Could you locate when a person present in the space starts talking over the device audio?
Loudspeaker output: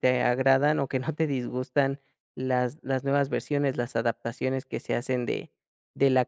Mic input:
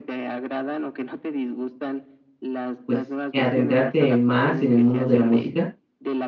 2.8 s

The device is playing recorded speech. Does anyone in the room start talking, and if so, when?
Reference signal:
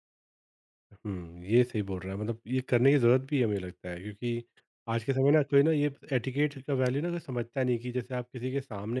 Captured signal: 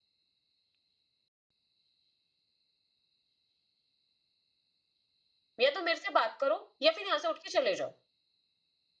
5.6 s

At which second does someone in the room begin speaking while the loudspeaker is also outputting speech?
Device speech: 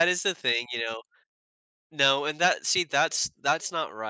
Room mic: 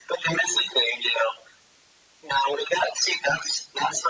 none

